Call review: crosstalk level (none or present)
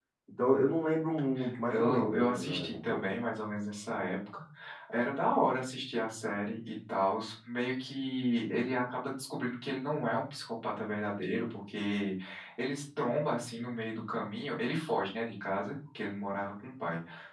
present